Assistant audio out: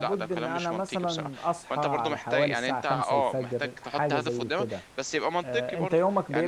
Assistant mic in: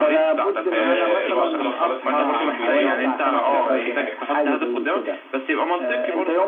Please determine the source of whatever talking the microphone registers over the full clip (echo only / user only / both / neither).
both